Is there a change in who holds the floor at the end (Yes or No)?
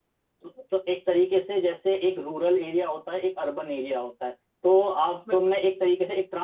No